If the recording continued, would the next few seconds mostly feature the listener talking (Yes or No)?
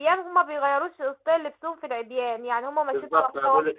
Yes